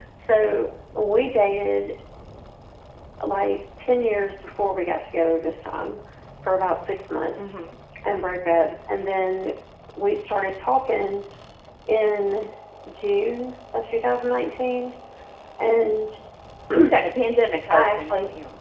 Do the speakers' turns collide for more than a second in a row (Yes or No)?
No